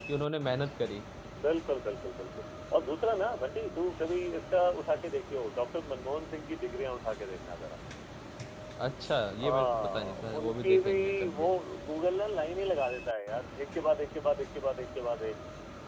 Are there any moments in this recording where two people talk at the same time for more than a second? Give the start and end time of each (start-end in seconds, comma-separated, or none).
9.4-11.5